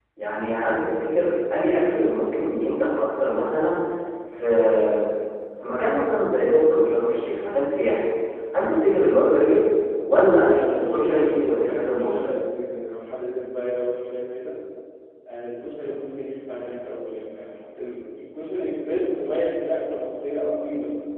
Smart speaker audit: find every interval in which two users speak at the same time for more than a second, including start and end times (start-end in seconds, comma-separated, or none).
10.0-12.1